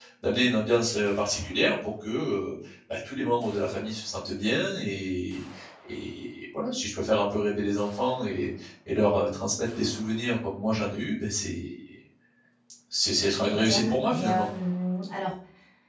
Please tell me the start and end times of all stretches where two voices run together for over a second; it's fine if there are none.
13.2-14.5

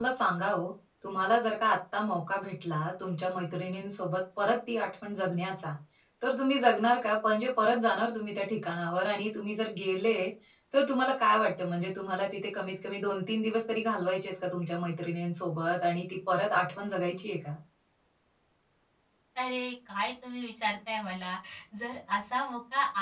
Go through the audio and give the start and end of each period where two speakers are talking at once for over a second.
none

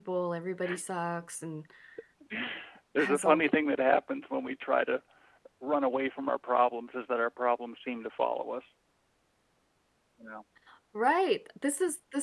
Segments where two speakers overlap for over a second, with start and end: none

